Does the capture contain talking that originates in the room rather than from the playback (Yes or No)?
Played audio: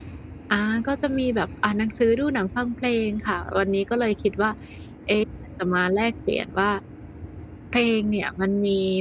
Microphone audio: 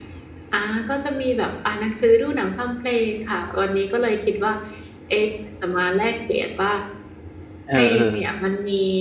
Yes